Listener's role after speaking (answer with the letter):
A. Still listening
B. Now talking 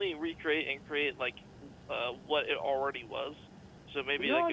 B